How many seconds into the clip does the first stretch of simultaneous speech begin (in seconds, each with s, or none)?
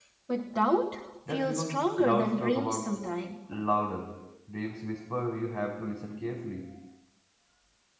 1.3 s